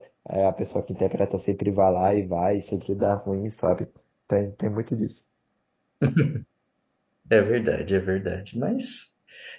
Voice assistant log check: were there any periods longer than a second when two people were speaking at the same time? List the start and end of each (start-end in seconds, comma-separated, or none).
none